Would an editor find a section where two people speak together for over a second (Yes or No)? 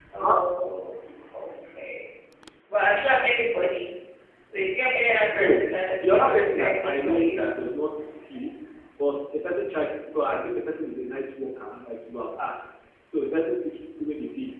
Yes